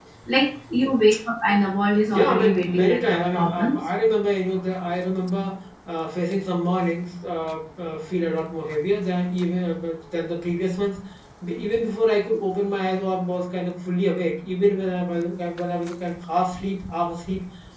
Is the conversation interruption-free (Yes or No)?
No